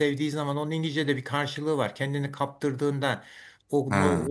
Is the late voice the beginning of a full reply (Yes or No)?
No